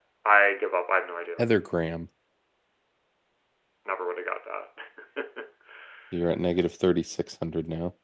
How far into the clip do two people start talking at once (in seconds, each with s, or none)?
none